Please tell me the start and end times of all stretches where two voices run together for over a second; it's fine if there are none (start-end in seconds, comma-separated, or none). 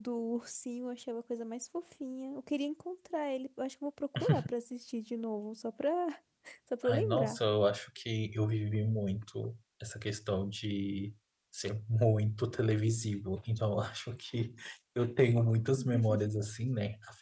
none